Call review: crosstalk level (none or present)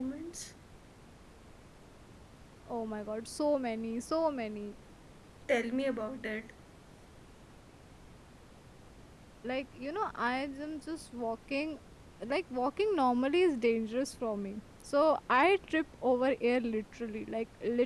none